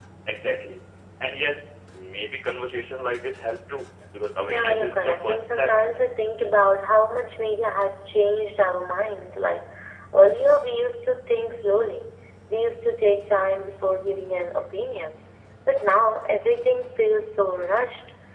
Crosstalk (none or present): present